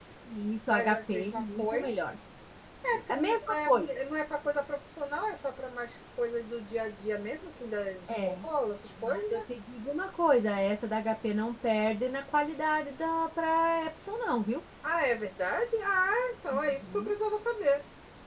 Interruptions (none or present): present